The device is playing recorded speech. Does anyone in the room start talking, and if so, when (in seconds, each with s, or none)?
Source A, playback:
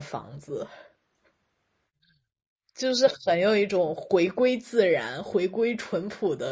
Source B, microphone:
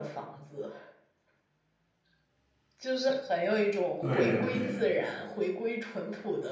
4.0 s